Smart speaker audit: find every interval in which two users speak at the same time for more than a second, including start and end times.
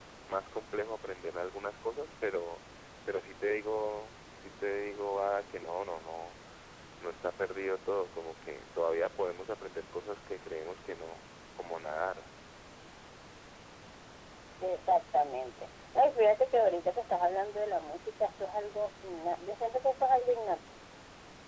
none

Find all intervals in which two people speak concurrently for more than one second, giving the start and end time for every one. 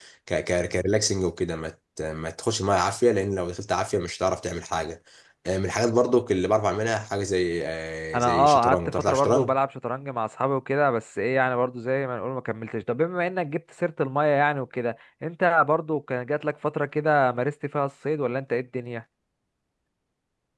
8.2-9.5

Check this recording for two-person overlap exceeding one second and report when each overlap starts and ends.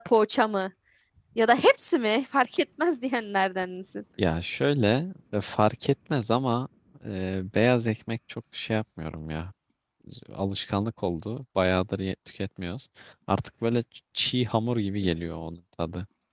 none

